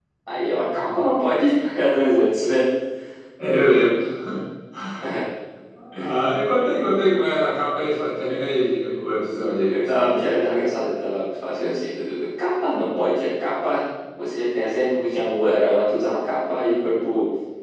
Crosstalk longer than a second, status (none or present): none